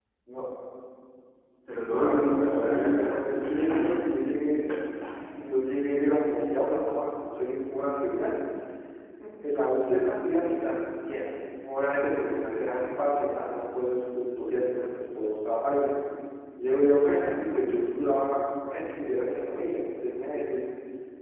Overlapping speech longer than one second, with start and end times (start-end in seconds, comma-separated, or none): 1.9-3.2